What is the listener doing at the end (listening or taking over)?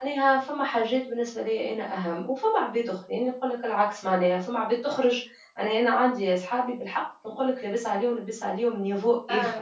listening